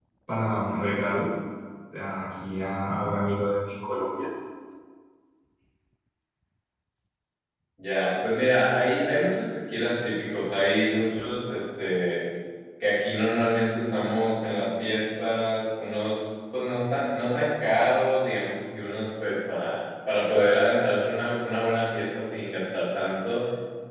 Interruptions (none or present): none